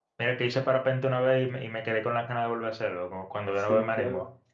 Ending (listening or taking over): taking over